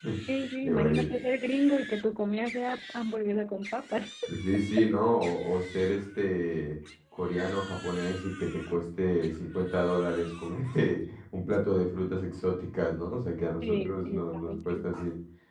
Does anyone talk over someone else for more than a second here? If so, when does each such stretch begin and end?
13.6-14.9

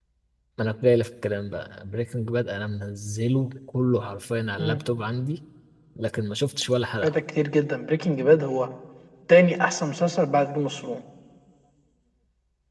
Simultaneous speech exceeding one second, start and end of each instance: none

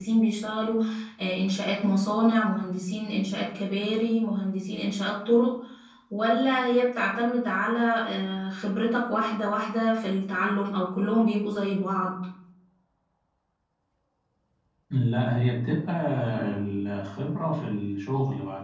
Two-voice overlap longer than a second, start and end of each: none

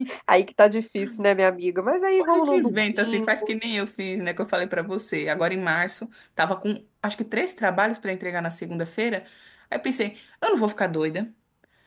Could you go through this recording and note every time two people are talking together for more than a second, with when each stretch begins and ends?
2.3-3.5

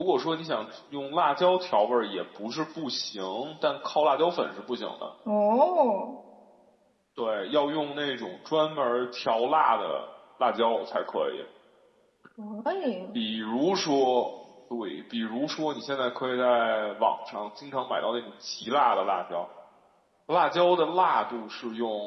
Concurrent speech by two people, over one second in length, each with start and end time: none

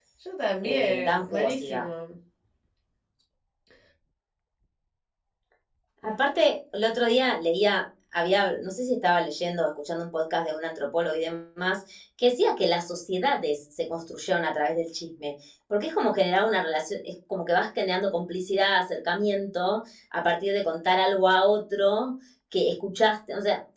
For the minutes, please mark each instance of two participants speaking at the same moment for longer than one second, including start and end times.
0.6-1.9

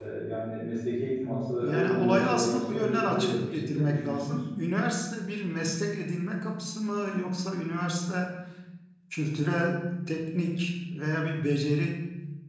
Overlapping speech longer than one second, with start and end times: 1.6-4.4

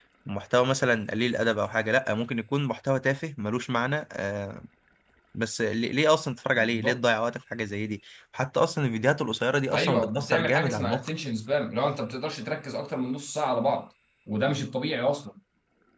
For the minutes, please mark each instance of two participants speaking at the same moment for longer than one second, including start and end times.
9.7-11.1

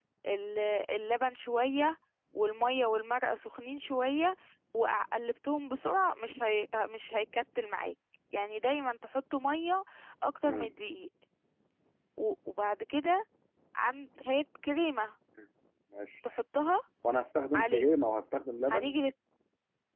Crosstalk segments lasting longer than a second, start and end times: none

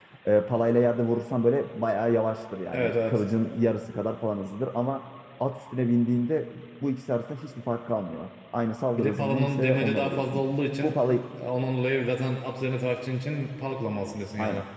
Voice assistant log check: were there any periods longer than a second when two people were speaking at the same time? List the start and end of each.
9.0-10.4

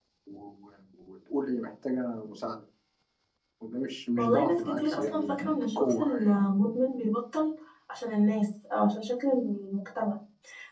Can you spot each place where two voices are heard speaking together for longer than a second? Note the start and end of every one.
4.2-6.4

